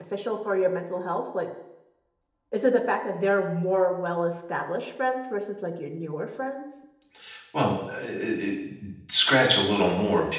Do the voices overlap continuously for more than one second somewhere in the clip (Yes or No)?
No